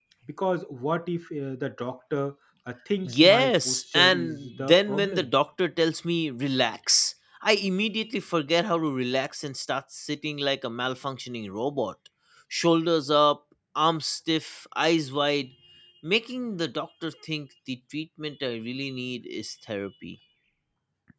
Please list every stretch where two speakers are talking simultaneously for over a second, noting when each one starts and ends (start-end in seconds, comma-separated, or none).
3.0-5.3